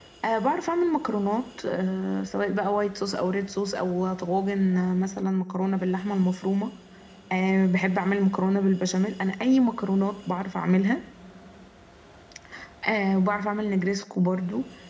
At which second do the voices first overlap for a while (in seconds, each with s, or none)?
none